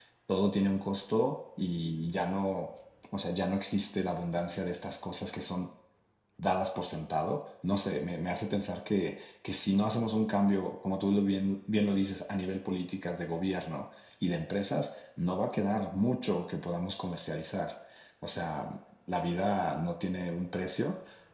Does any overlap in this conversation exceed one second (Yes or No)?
No